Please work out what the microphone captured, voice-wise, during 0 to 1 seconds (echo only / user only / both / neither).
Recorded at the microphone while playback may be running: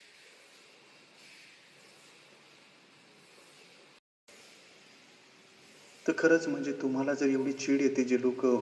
neither